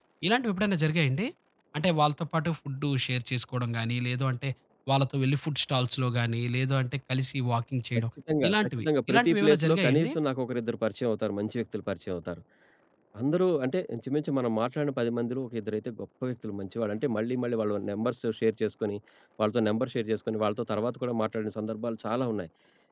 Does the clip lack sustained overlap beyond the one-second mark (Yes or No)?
No